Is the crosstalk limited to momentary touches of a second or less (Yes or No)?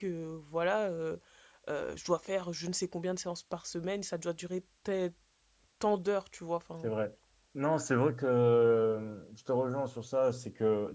Yes